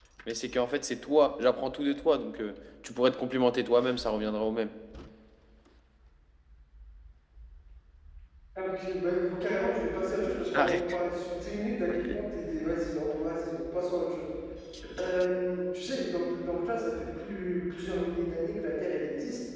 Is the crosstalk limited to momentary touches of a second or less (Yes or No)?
Yes